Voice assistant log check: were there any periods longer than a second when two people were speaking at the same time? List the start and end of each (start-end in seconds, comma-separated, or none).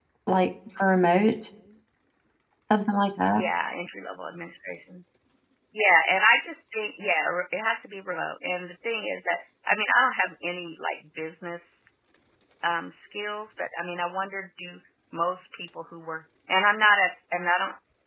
none